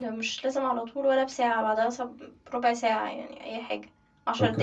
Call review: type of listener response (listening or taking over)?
taking over